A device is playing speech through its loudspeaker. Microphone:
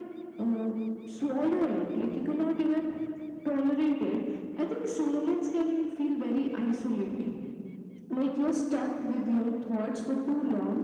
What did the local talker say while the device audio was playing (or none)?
none